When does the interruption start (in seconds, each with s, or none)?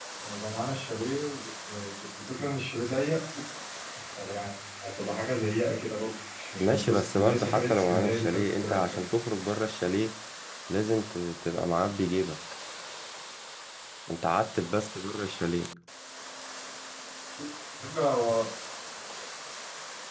6.6 s